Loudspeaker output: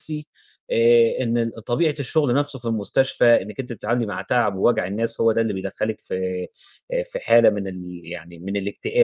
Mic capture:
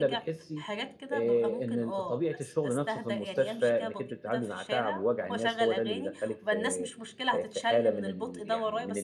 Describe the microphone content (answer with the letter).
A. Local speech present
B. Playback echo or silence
A